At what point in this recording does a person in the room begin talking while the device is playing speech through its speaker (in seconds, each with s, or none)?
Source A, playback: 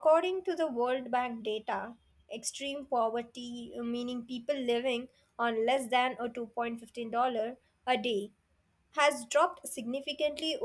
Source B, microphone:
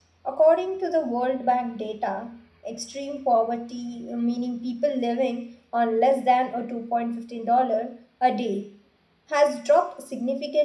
none